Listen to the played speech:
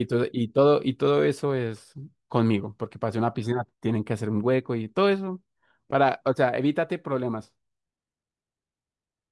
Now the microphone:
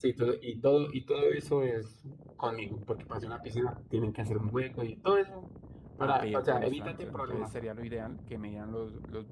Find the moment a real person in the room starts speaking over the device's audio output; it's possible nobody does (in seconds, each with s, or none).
6.0 s